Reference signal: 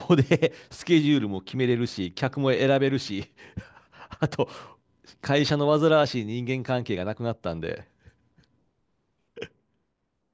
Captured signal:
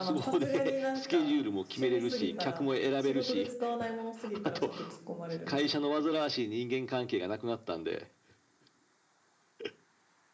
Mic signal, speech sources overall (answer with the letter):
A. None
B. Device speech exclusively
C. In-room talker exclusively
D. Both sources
D